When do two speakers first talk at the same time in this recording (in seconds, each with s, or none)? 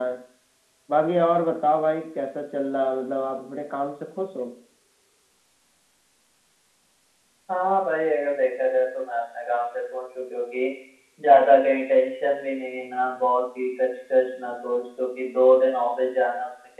none